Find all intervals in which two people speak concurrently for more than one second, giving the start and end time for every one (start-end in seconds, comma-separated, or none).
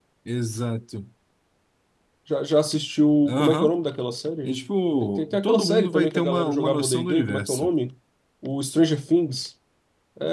5.0-7.7